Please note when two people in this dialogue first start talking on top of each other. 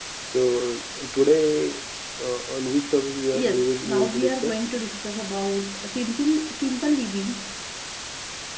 3.3 s

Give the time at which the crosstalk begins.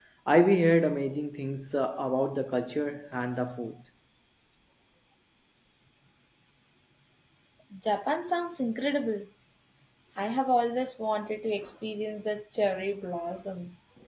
none

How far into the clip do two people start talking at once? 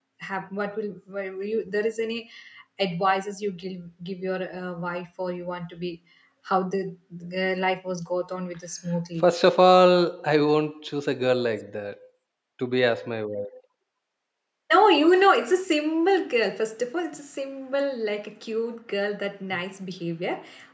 none

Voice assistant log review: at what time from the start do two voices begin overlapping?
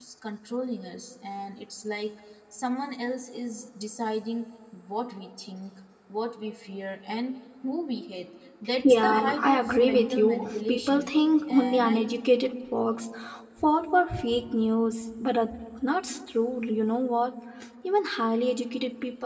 8.8 s

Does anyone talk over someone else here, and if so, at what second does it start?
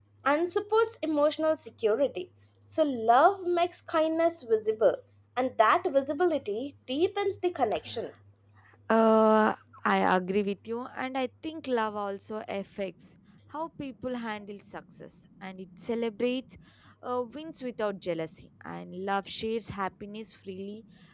none

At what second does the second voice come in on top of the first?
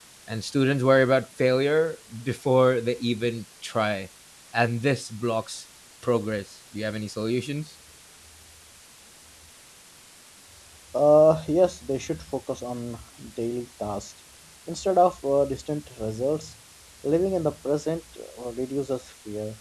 none

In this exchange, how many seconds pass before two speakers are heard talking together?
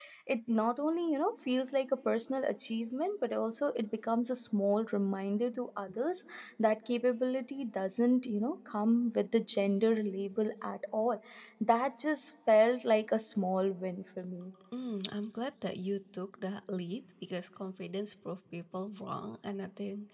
none

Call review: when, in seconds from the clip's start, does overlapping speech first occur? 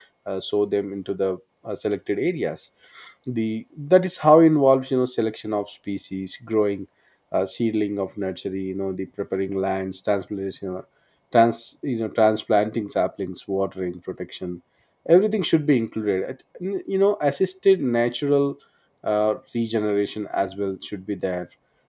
none

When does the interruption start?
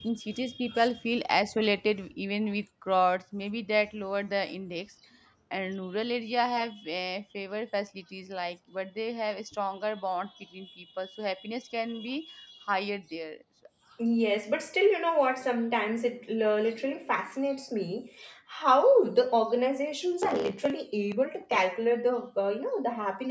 none

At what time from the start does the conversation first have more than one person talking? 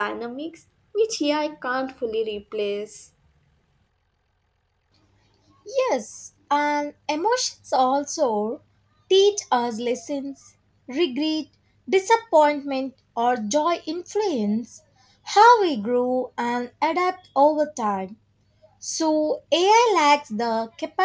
none

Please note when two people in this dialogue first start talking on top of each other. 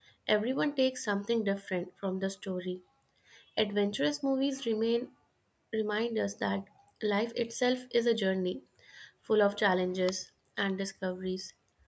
none

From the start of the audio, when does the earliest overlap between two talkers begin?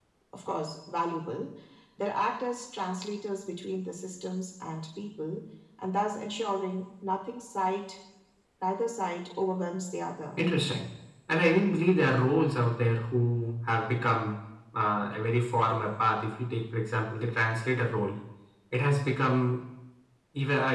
none

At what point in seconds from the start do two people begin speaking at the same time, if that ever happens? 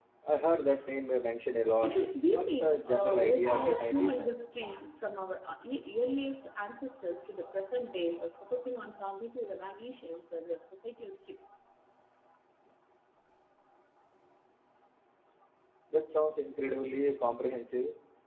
1.8 s

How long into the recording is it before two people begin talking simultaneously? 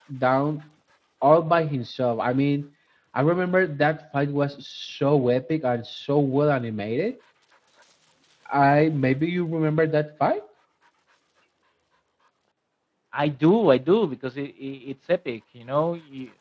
none

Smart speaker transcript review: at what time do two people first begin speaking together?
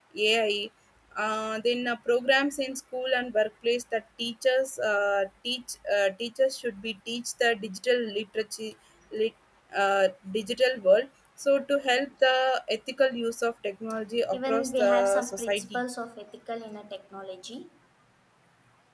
14.3 s

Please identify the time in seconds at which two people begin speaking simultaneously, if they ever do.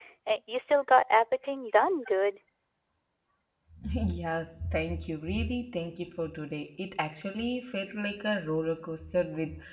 none

